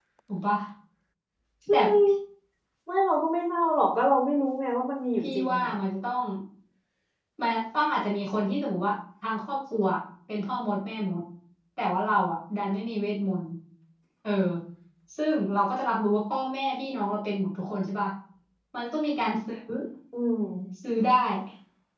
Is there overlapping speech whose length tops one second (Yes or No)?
No